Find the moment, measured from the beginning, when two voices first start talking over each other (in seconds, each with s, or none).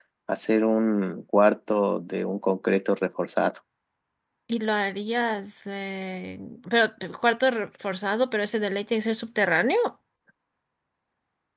none